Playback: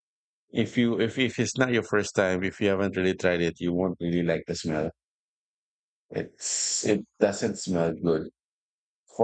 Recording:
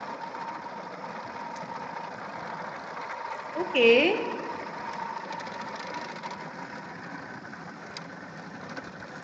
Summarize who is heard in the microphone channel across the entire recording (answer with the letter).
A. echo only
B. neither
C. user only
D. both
C